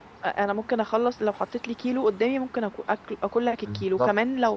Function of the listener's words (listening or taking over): listening